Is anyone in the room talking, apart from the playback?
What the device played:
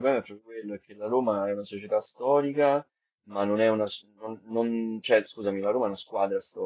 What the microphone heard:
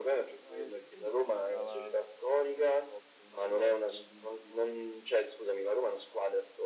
Yes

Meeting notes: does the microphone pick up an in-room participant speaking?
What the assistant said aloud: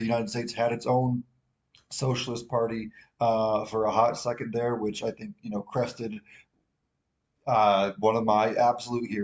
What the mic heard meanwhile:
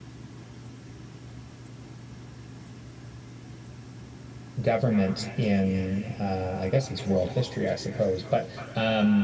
Yes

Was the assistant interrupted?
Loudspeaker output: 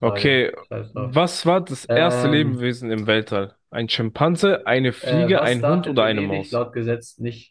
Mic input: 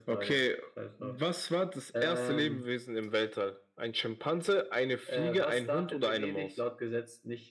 No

